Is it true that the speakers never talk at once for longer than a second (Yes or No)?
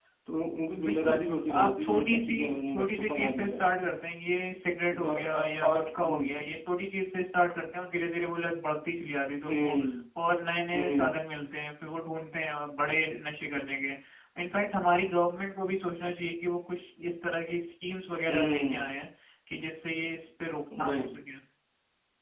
No